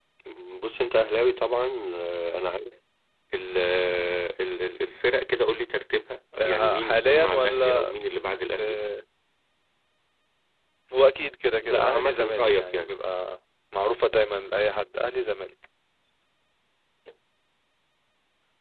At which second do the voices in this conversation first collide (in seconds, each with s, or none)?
6.4 s